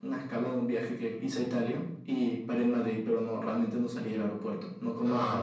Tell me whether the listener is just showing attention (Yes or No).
No